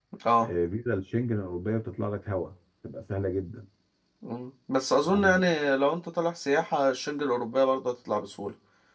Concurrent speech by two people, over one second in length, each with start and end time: none

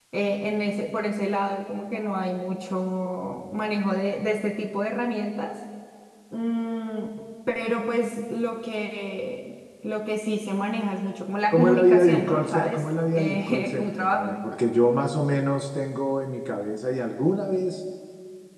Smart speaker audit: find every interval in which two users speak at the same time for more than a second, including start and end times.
11.5-14.4

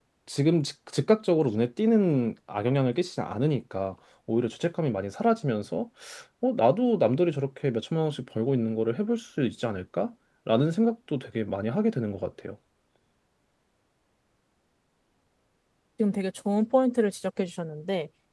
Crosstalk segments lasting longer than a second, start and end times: none

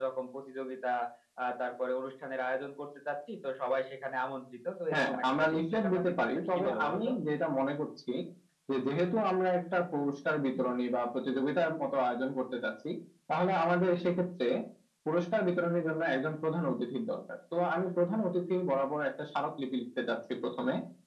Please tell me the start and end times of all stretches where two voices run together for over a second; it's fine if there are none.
4.9-7.1

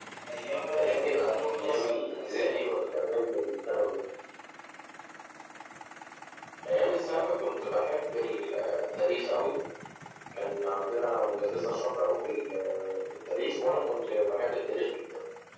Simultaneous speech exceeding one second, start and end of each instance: 0.8-2.7

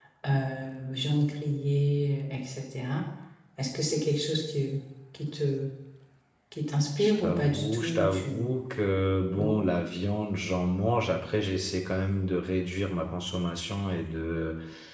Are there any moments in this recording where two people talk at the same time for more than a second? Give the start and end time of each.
7.0-8.5

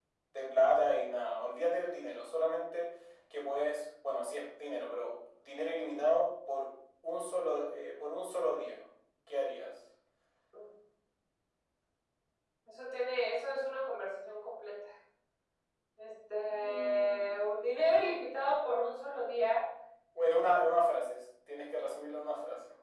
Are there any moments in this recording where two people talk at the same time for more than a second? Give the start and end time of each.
16.6-18.2

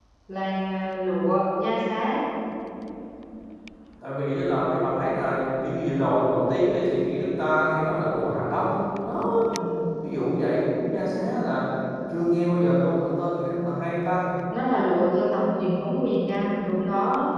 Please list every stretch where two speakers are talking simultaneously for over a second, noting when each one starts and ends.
none

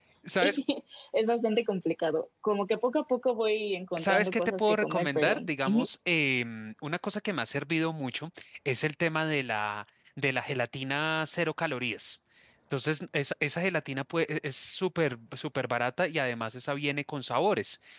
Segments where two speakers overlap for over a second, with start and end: 4.0-5.9

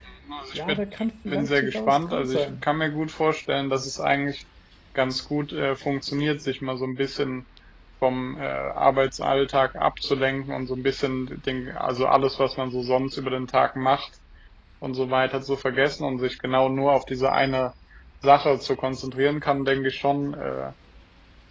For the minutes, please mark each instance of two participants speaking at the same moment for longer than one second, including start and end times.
1.3-2.6

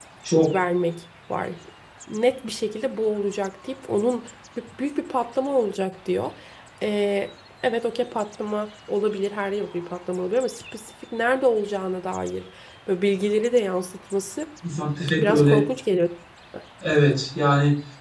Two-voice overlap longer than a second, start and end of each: none

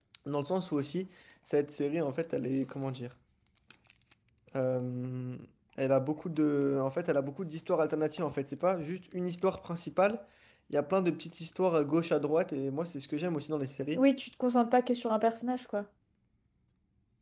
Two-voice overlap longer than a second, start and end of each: none

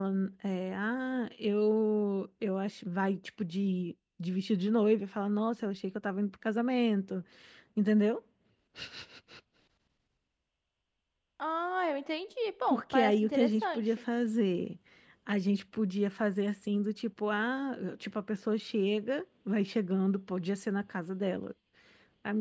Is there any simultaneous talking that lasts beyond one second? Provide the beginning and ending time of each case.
12.7-14.0

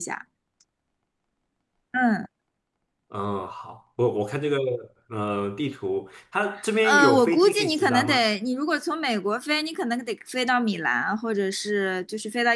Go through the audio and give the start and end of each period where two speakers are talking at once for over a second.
6.8-8.2

